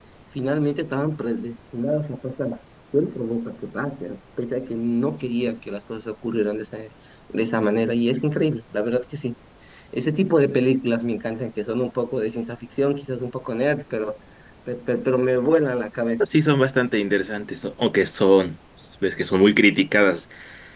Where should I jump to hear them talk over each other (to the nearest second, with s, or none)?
none